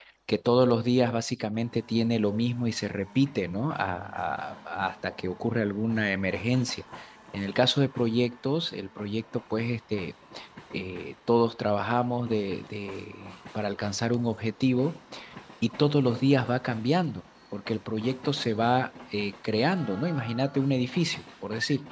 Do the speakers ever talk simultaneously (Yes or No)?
No